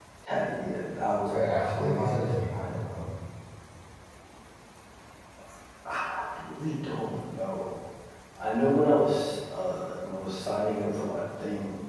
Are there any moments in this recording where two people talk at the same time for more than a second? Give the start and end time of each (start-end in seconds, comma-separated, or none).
1.3-2.8